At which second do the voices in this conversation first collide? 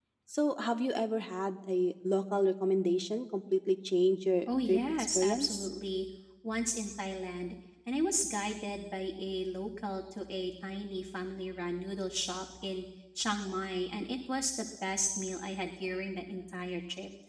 4.5 s

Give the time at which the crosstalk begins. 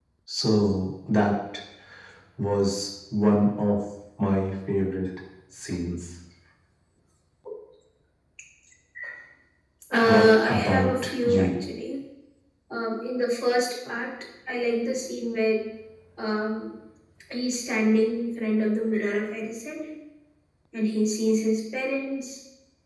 10.0 s

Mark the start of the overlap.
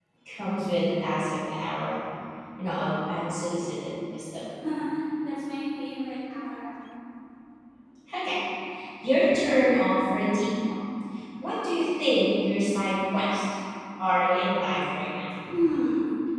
none

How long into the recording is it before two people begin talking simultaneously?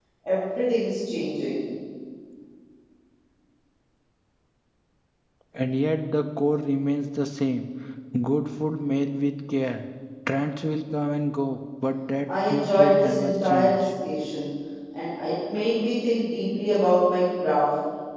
12.3 s

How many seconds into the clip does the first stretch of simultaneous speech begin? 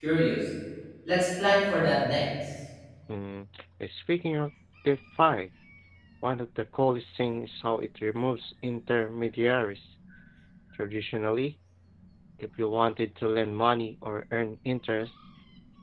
none

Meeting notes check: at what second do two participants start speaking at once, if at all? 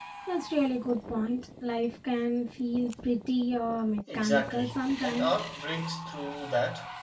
4.1 s

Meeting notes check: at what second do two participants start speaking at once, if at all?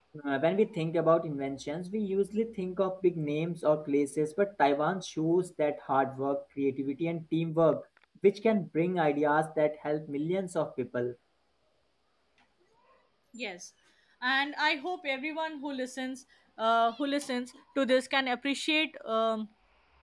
none

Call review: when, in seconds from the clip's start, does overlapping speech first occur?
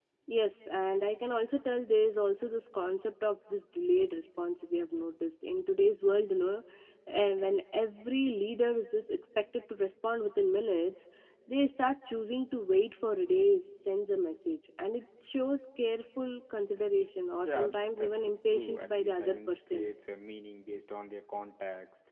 17.4 s

